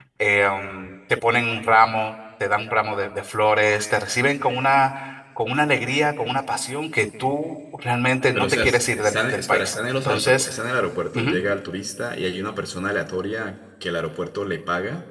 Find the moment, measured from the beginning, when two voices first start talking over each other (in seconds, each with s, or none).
8.3 s